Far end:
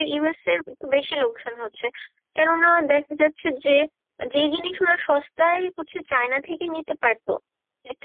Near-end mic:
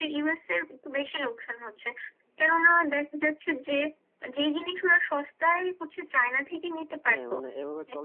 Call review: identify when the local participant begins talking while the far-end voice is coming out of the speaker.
7.1 s

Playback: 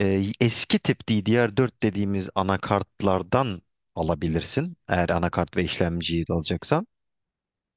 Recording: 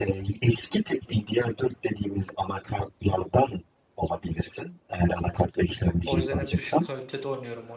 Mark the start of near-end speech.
6.0 s

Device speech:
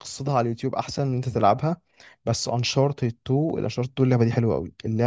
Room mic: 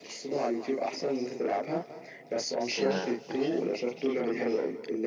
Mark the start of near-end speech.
2.8 s

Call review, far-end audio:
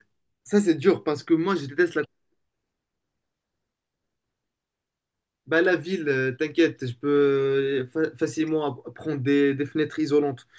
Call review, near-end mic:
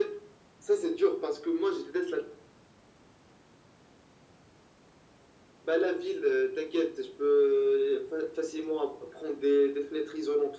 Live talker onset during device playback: none

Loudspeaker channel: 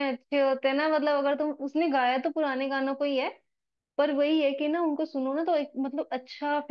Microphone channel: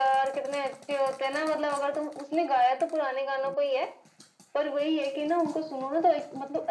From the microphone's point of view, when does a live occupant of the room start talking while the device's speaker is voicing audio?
none

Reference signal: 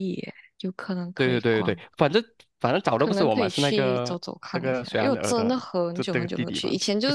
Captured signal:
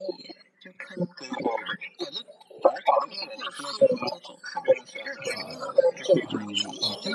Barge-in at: 5.1 s

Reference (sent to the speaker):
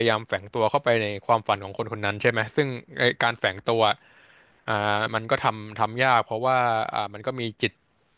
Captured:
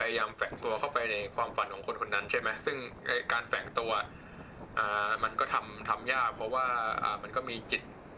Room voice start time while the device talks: none

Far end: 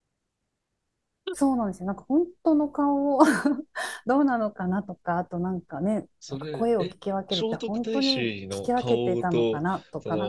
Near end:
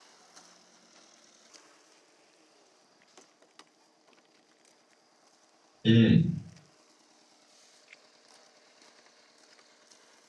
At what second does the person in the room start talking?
5.8 s

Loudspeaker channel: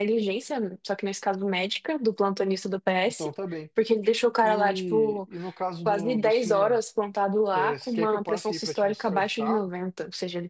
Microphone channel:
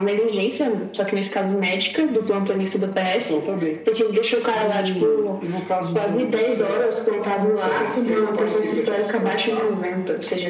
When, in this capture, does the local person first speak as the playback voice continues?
none

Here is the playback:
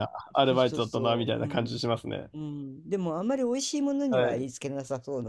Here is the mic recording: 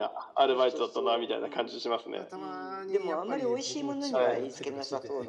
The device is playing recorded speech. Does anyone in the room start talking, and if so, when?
2.1 s

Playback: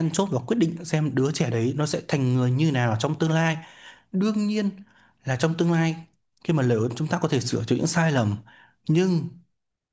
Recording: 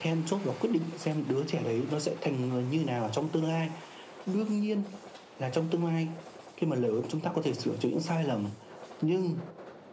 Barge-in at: none

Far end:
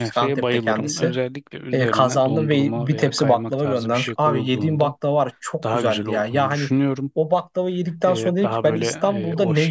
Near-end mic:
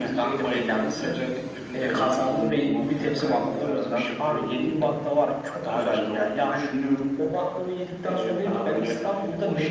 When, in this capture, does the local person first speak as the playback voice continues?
none

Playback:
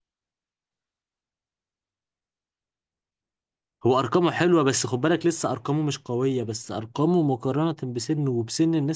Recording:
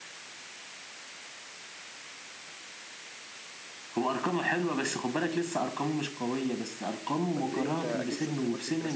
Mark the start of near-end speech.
7.3 s

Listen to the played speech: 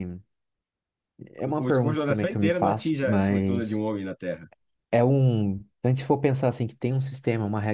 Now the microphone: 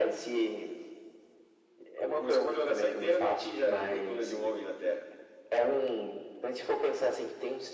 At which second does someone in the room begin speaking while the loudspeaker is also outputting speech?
none

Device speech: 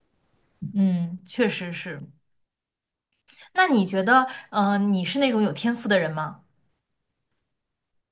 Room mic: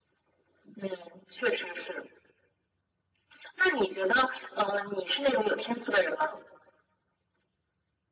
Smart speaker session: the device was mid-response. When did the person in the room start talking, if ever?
none

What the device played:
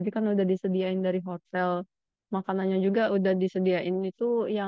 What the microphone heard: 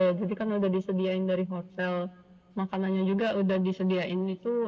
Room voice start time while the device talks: none

